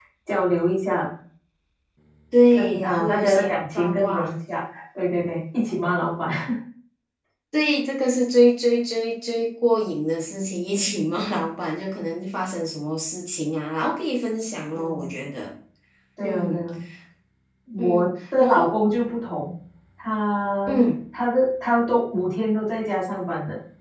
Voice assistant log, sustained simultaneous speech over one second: present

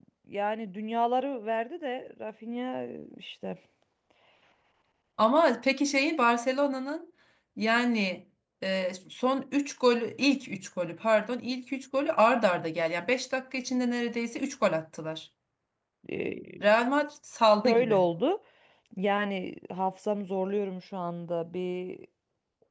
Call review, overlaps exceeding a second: none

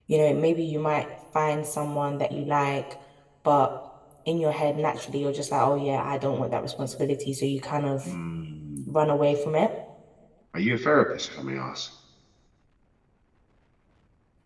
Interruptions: none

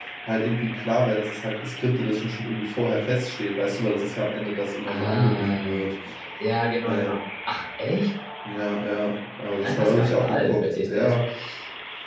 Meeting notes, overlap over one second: present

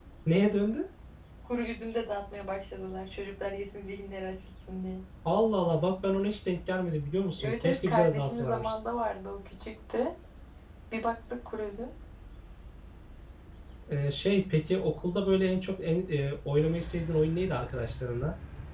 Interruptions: present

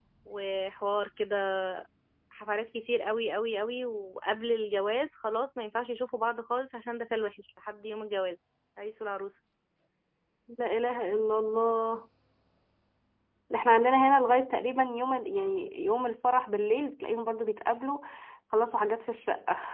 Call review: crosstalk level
none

